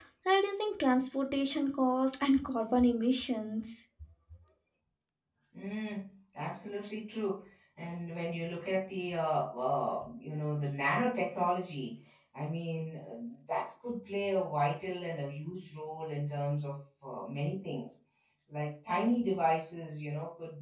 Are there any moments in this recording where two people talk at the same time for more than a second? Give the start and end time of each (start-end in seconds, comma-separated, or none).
none